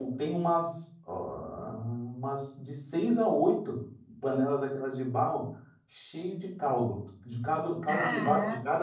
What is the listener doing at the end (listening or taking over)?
listening